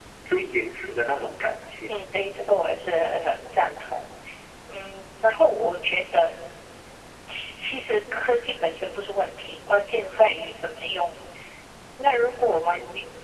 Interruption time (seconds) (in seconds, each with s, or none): none